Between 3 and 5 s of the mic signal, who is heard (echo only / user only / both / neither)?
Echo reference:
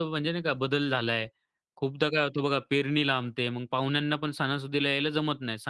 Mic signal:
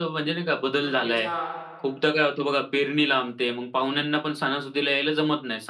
echo only